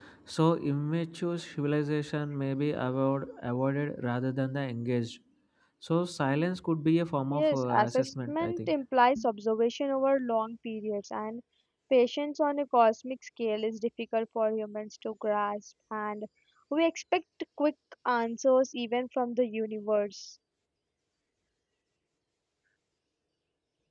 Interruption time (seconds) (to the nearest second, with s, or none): 7 s